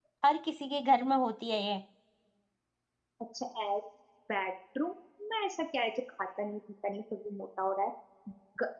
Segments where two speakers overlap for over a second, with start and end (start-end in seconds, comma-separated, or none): none